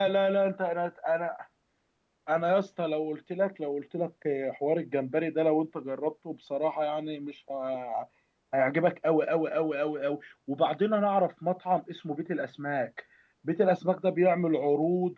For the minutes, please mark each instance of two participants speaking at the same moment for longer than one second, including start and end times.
none

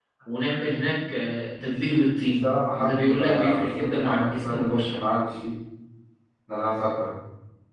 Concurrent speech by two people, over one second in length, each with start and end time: 2.2-5.0

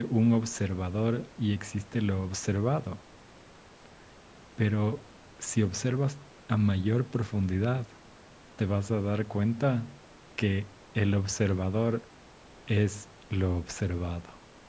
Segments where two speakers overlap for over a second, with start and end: none

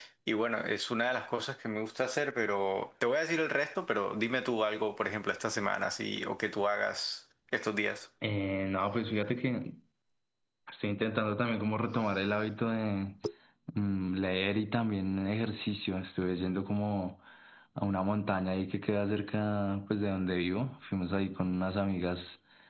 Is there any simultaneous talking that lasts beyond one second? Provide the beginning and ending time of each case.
none

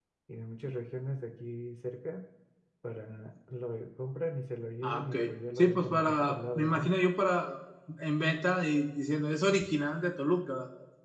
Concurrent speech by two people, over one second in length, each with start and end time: 5.6-6.9

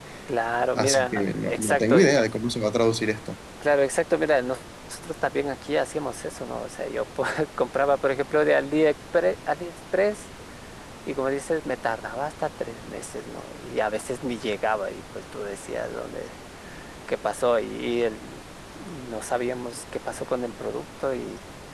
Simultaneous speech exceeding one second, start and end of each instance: 0.8-2.0

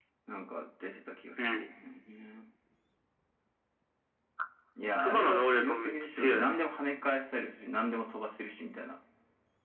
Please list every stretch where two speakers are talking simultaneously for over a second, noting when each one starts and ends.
5.0-6.6

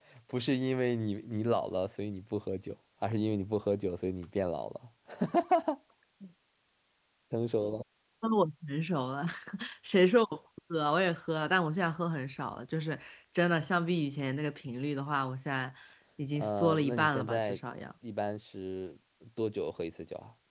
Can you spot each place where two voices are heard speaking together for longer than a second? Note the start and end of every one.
16.4-17.6

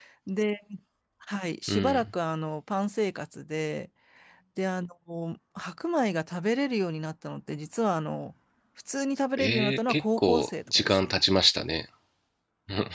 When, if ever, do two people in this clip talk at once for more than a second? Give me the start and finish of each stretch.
9.4-11.2

